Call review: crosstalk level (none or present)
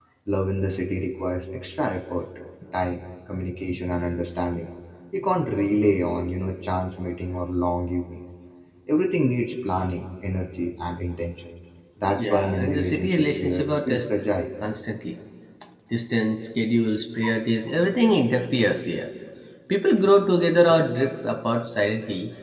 present